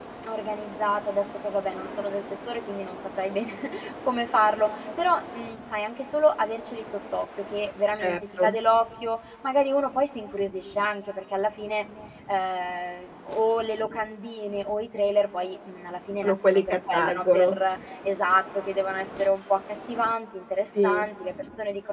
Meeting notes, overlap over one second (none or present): present